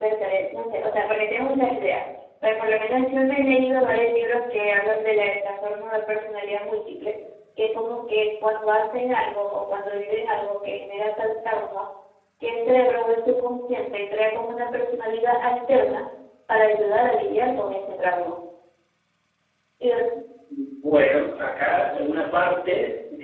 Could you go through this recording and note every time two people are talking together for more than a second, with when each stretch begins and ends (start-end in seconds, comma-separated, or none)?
none